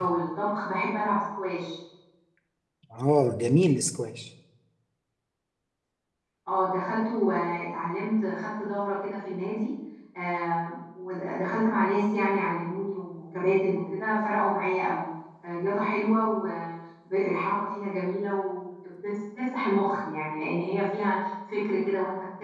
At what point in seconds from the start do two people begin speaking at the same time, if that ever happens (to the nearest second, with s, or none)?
none